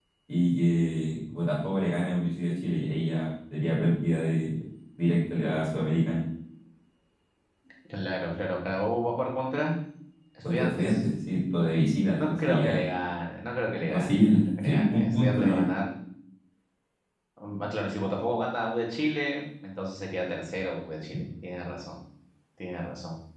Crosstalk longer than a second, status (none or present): present